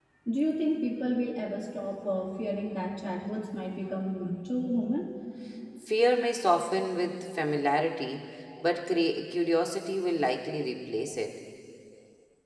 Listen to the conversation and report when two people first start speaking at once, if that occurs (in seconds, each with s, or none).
none